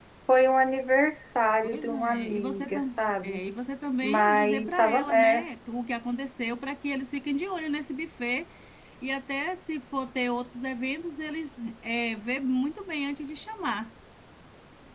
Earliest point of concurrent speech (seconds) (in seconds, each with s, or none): 1.6 s